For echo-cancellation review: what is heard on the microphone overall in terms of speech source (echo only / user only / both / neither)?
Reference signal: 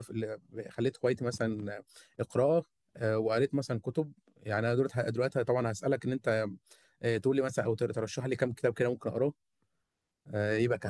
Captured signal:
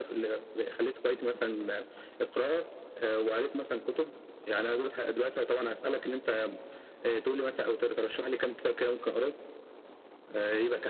echo only